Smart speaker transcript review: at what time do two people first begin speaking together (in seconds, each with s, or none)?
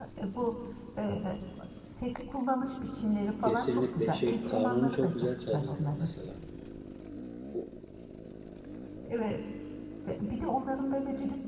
3.5 s